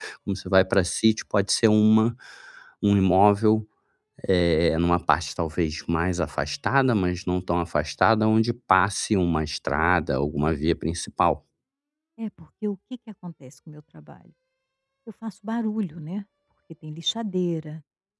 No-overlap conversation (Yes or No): Yes